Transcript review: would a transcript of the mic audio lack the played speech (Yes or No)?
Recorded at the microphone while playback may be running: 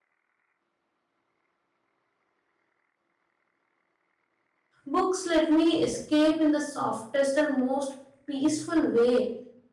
Yes